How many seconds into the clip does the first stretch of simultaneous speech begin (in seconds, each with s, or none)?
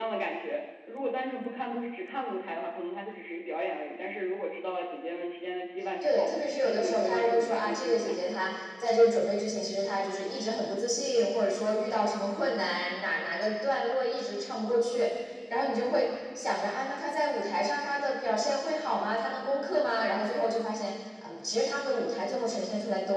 6.0 s